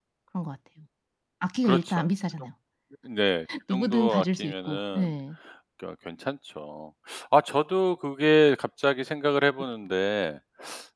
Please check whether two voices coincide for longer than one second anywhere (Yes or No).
Yes